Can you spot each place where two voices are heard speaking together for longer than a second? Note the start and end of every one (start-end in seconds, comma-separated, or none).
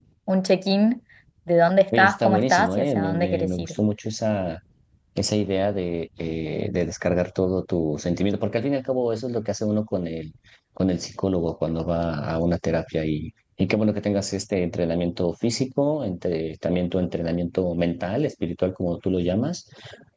1.9-3.7